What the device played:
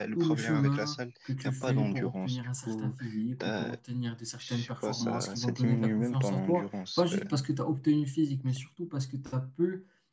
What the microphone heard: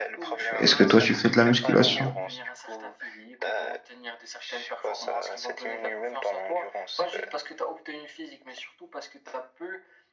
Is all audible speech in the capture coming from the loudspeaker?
No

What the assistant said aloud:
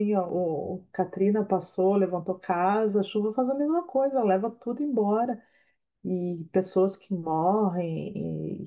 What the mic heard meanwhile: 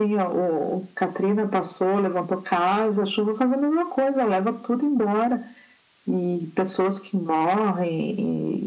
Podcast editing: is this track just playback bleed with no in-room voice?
Yes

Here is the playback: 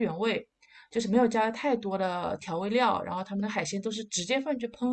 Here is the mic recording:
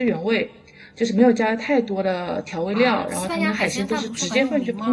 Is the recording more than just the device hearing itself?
Yes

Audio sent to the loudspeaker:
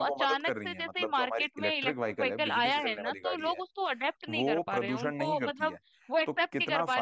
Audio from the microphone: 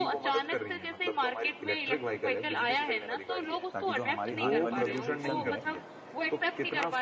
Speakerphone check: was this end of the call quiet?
No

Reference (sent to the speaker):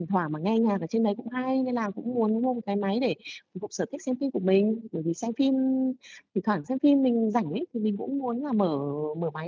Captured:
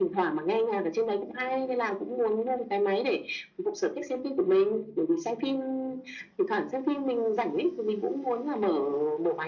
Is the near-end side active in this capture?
No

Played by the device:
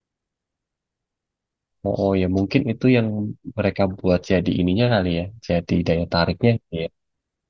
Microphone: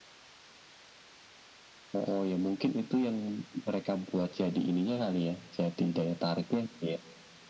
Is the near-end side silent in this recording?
Yes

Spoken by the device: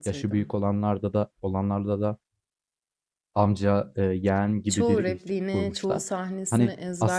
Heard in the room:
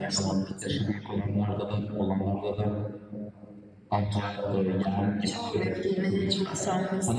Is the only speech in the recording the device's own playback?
Yes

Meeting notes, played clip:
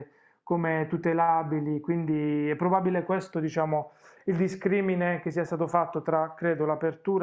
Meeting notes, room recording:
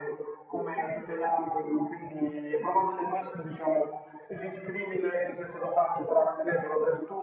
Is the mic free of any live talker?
Yes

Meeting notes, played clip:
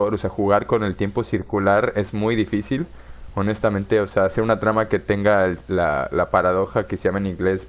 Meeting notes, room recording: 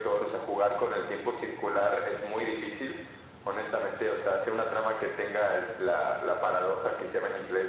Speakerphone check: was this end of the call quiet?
Yes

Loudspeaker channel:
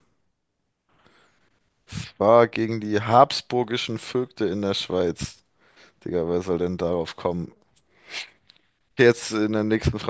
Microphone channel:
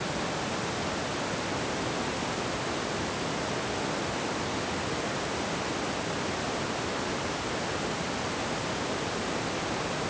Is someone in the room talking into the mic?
No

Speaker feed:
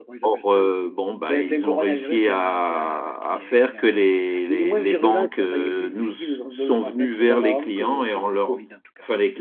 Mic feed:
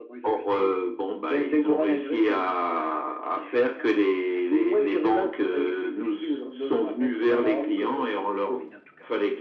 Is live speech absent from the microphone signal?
Yes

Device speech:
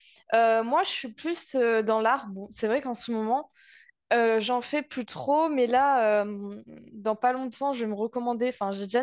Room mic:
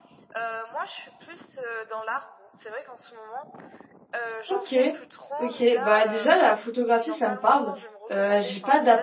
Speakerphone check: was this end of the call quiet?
No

